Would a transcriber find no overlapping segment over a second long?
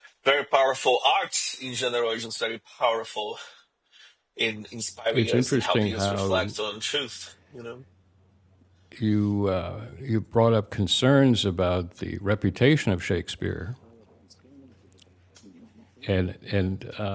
No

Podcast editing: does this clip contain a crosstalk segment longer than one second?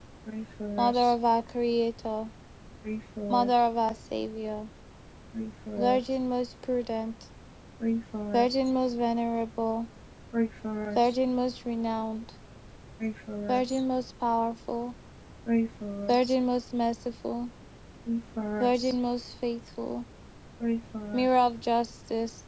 No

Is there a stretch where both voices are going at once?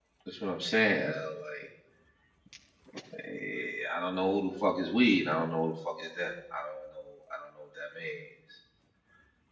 No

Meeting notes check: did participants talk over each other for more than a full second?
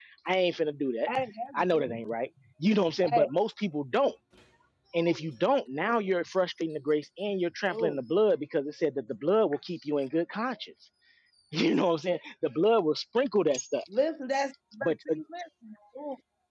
No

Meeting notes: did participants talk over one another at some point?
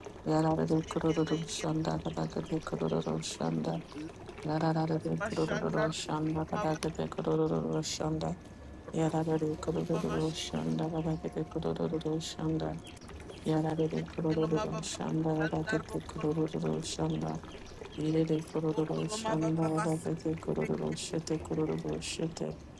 Yes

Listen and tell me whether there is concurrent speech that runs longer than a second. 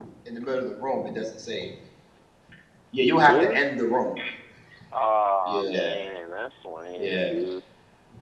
No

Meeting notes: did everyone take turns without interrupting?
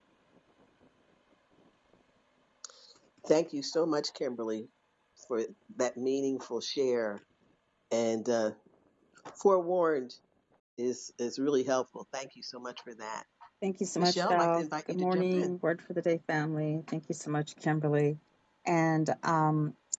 No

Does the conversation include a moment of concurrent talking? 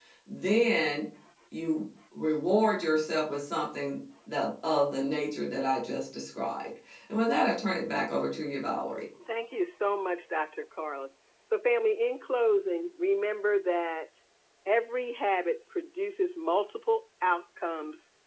No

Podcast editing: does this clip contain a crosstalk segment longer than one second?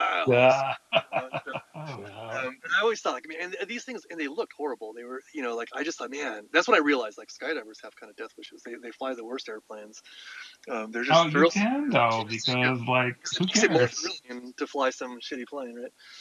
Yes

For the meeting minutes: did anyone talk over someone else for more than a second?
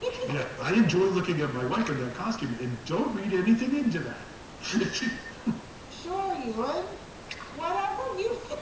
No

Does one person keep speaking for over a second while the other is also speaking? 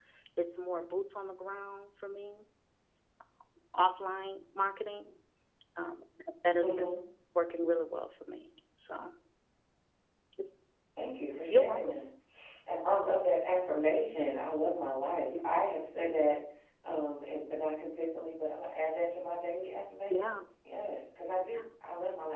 No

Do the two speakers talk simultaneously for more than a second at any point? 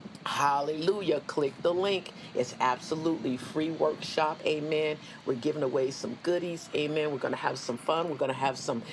No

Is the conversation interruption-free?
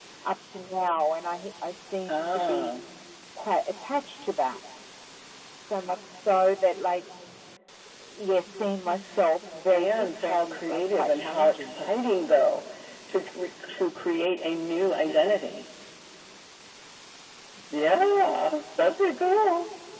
No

